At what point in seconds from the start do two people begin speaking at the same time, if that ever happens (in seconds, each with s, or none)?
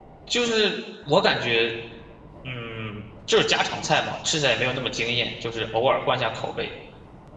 none